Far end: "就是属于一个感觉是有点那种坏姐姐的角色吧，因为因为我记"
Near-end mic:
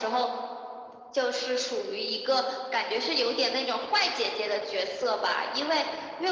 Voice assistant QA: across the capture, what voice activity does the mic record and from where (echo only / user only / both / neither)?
echo only